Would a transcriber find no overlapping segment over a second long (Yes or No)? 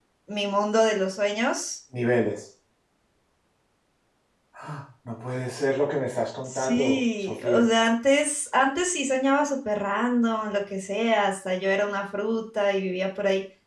No